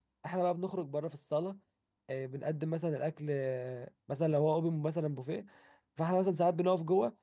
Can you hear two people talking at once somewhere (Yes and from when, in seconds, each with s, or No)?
No